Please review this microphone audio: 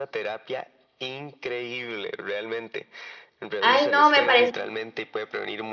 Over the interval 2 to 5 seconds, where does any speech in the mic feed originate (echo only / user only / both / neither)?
both